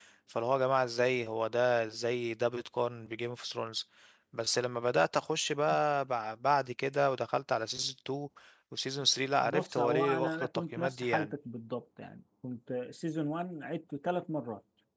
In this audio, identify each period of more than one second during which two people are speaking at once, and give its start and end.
9.4-11.3

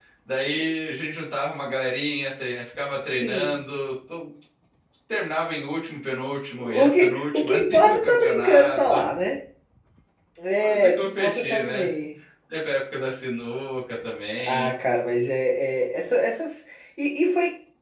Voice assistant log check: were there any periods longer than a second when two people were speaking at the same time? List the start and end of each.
6.8-8.8, 10.6-11.9

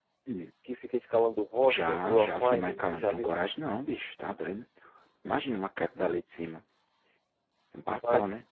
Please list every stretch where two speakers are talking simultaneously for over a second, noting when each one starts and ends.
1.6-3.3

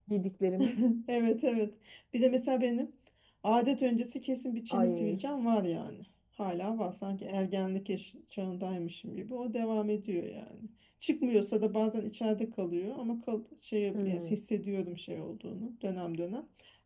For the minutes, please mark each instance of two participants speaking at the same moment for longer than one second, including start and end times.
none

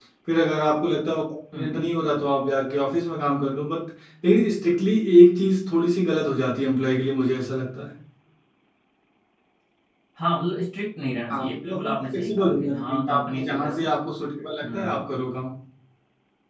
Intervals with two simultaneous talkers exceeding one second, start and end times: 11.3-13.8

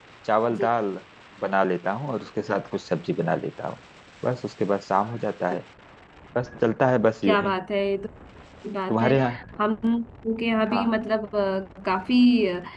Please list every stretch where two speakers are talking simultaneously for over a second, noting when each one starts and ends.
none

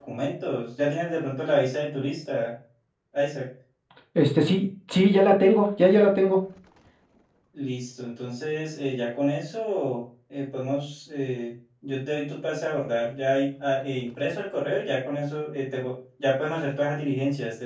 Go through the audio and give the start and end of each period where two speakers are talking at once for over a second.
none

